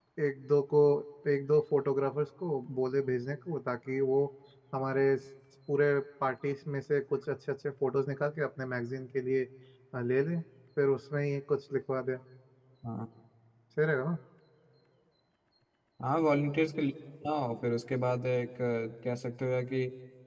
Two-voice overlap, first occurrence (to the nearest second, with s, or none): none